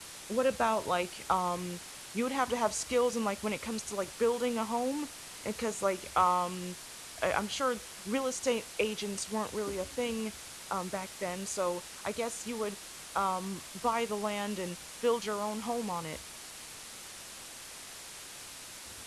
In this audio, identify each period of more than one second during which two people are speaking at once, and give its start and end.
none

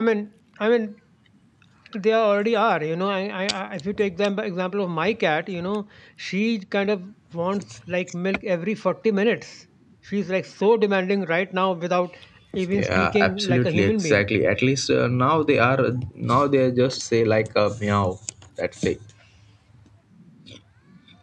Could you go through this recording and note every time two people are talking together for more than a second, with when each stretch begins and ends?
12.7-14.2

